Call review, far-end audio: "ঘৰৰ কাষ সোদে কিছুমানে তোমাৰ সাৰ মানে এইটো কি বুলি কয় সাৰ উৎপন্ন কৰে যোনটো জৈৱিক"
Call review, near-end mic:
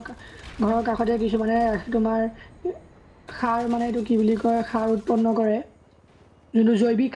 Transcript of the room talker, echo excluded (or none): none